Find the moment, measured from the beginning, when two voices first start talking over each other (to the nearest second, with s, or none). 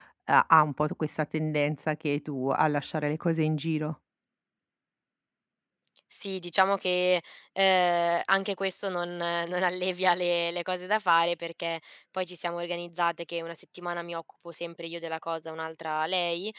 none